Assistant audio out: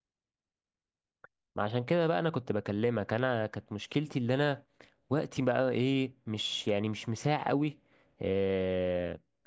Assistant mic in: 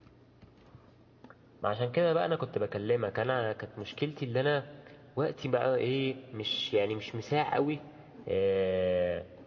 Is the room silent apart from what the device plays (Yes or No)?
Yes